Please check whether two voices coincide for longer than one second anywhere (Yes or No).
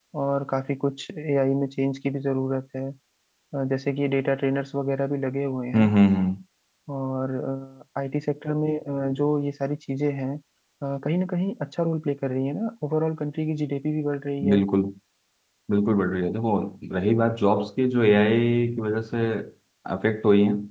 No